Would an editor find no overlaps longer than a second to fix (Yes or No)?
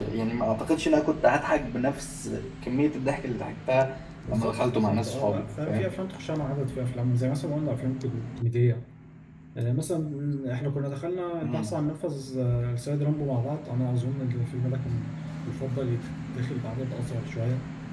No